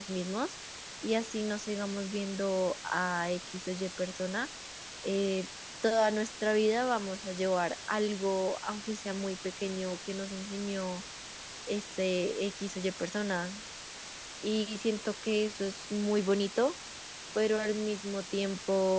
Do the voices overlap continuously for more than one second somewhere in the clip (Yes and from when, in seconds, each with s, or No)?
No